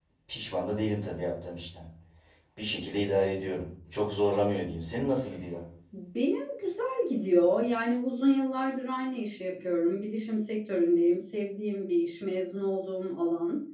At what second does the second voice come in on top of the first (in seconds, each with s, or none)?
none